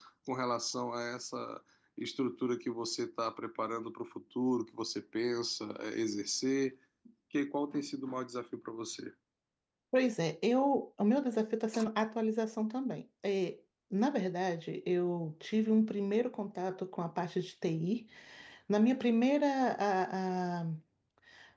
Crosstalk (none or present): none